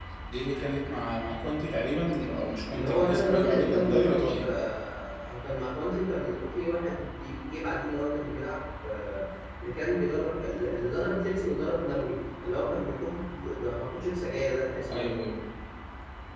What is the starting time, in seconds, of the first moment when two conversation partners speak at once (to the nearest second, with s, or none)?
3 s